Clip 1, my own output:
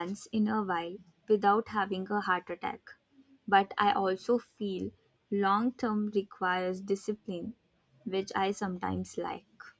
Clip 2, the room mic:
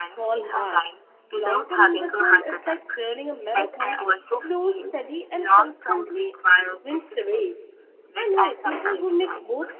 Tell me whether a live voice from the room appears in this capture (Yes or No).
Yes